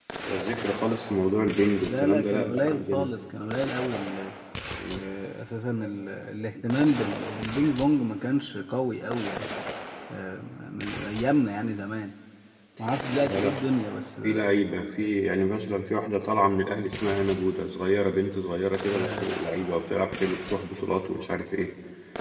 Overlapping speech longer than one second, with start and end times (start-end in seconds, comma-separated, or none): 1.8-3.1